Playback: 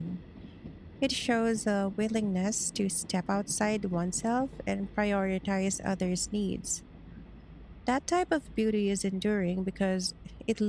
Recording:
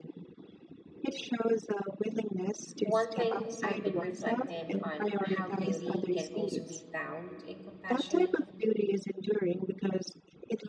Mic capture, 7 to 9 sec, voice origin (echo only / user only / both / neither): both